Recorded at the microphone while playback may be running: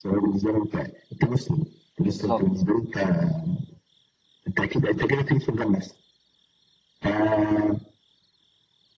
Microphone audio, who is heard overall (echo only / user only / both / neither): both